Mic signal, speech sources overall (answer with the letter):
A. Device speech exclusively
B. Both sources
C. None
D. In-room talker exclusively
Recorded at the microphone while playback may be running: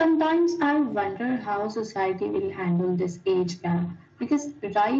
A